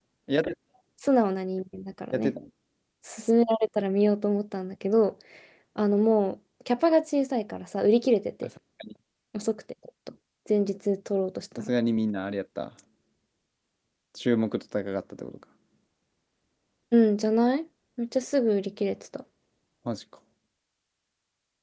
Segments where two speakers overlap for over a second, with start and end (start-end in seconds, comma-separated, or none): none